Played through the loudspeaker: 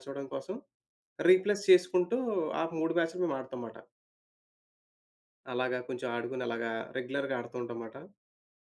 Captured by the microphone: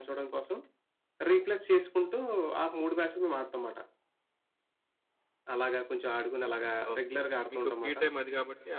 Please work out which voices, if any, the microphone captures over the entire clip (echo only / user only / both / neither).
both